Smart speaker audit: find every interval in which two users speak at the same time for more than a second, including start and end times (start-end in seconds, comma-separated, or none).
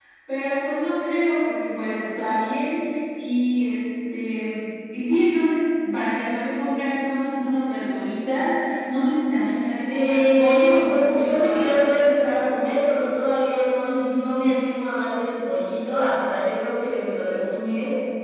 9.9-11.9